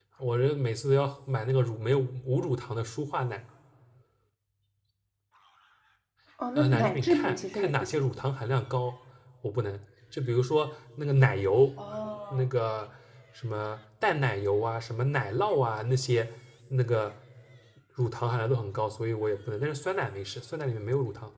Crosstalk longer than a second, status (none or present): present